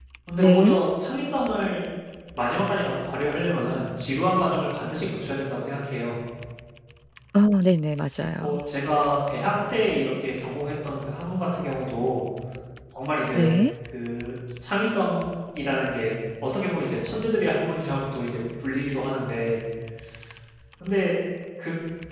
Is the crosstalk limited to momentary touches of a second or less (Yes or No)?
Yes